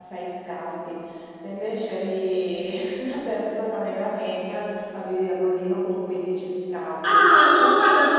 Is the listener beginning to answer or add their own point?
Yes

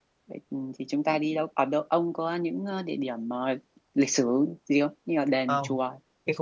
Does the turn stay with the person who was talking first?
No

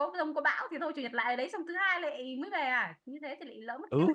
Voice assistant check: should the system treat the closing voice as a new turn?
Yes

